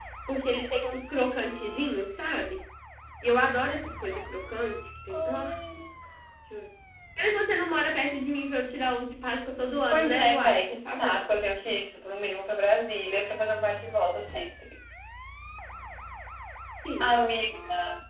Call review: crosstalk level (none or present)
present